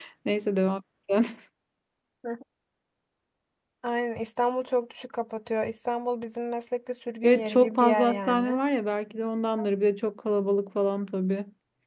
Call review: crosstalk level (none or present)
present